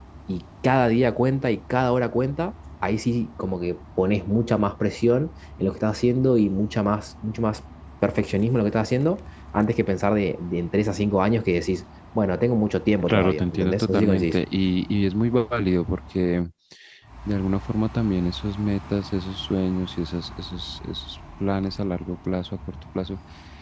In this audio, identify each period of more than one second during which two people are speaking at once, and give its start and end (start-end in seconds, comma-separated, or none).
13.1-14.4